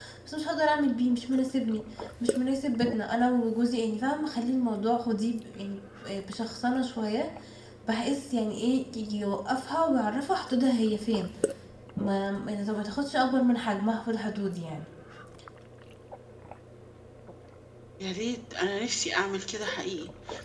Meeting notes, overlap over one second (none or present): none